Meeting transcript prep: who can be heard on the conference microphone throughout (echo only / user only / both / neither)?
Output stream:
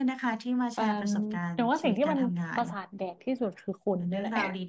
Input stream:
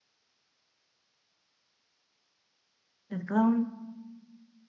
user only